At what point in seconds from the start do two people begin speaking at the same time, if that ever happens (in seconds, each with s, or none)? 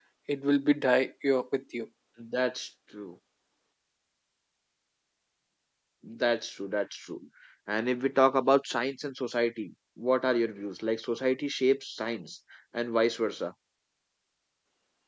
none